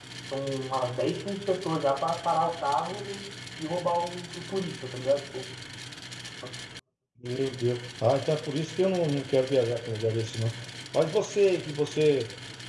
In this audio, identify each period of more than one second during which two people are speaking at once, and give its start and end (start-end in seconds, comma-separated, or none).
none